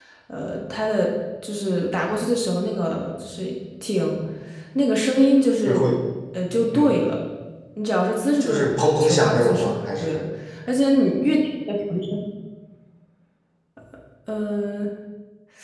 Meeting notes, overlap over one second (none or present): present